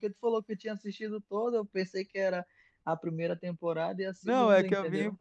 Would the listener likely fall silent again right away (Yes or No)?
No